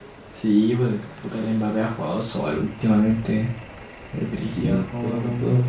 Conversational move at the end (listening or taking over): taking over